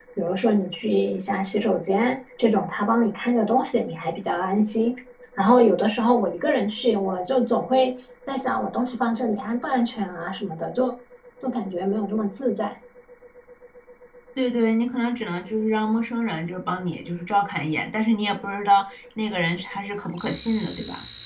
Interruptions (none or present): none